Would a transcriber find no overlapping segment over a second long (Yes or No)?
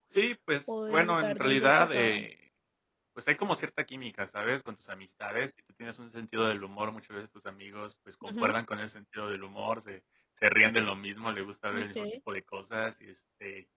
No